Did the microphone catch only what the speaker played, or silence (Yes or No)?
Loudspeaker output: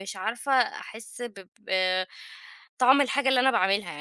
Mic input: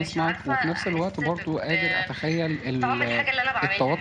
No